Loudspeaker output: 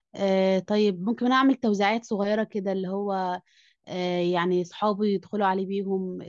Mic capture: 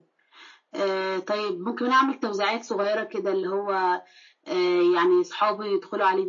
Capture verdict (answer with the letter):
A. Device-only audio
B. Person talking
A